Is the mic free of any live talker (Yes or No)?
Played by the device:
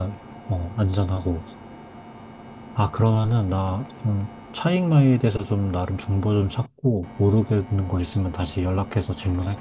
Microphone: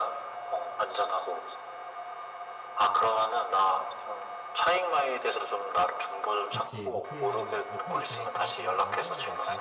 No